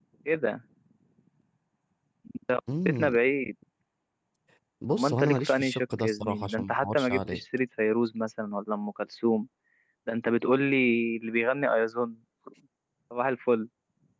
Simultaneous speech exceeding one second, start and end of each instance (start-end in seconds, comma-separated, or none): 4.9-7.4